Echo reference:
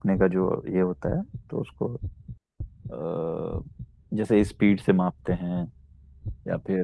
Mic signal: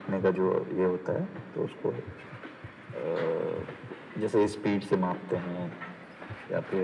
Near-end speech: none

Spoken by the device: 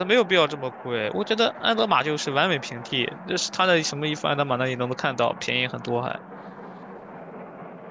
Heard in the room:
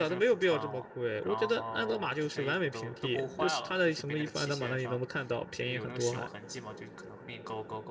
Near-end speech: present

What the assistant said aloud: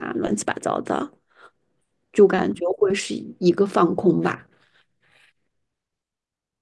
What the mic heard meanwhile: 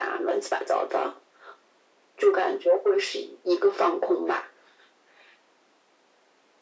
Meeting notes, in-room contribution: none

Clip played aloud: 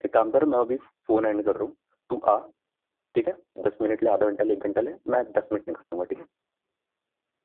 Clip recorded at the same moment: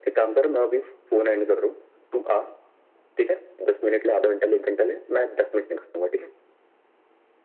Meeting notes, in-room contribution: none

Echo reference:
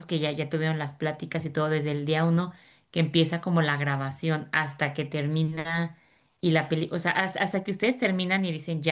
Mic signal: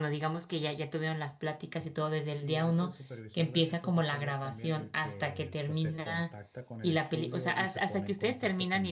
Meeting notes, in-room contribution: present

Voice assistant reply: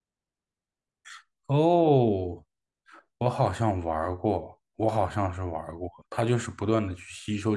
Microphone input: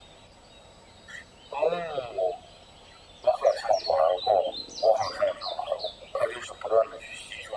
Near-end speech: none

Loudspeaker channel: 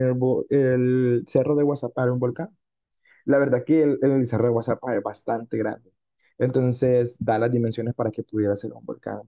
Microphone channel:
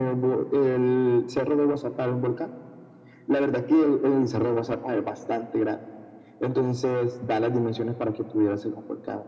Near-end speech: none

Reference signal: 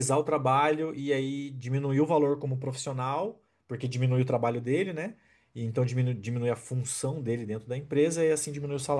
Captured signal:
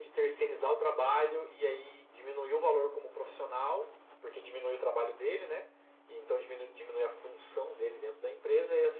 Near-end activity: none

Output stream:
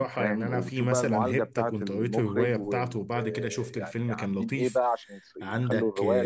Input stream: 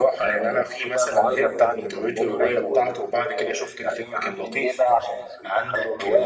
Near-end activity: none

